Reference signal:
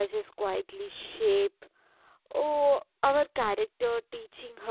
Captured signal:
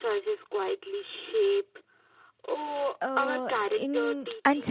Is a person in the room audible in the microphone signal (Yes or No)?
Yes